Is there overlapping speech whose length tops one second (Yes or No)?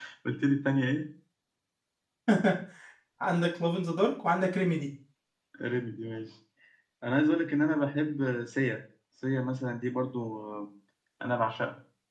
No